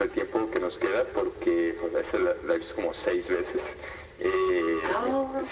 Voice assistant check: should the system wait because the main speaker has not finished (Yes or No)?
Yes